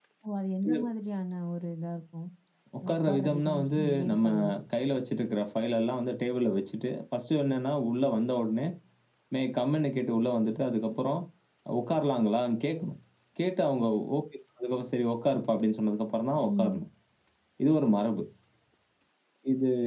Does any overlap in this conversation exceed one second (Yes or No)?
Yes